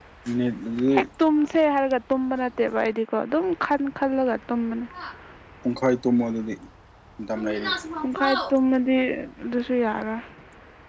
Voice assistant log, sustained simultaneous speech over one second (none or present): none